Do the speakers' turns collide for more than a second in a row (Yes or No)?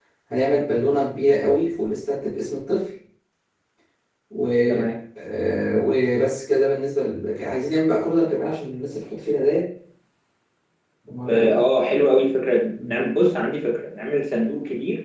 No